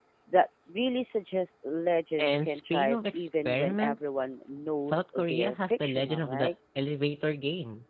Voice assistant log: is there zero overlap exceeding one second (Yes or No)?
No